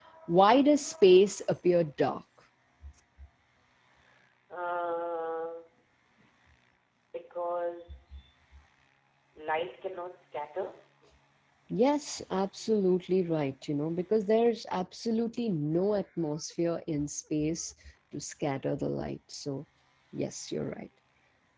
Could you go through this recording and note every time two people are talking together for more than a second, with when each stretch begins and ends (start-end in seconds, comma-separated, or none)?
none